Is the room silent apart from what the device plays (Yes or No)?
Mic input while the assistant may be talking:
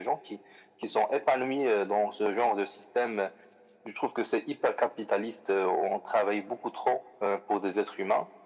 Yes